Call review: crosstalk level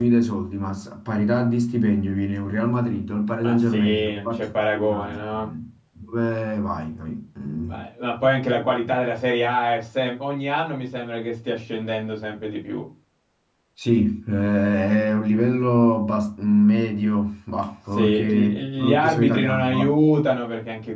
present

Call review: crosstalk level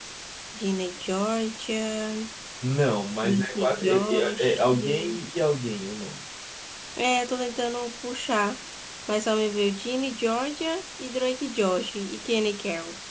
present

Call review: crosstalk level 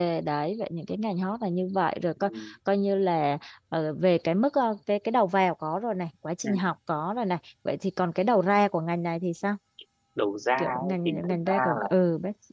present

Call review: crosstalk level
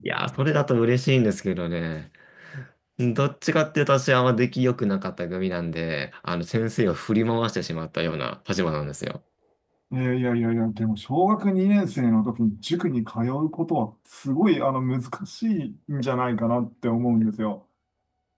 none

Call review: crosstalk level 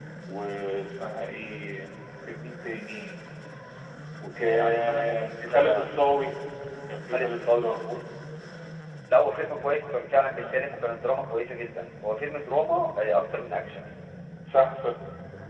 present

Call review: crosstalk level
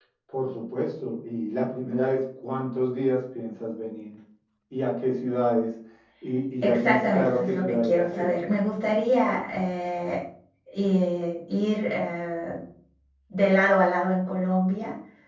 present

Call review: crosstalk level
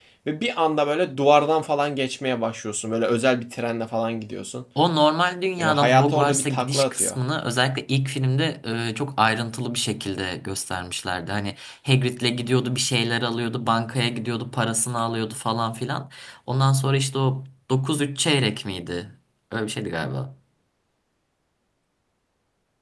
present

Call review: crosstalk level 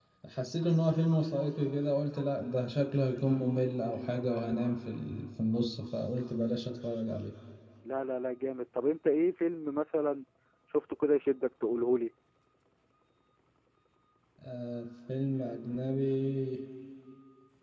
none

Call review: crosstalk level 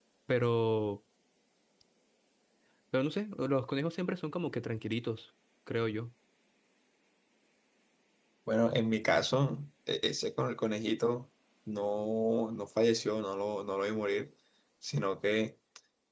none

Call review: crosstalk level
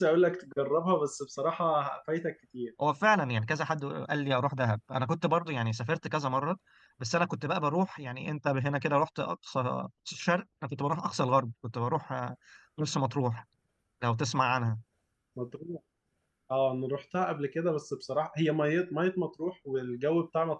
none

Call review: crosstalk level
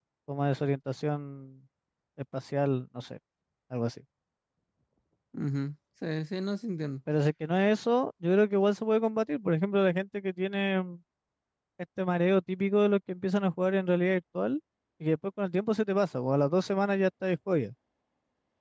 none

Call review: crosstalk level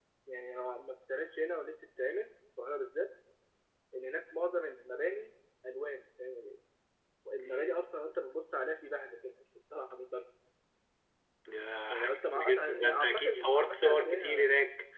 present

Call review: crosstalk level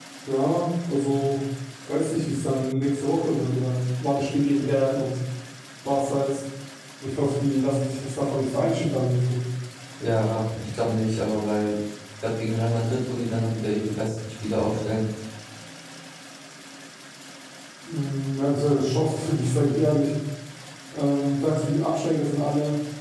none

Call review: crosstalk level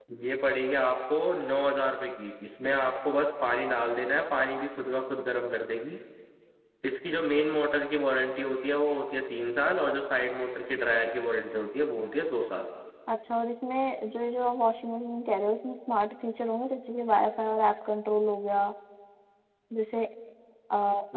none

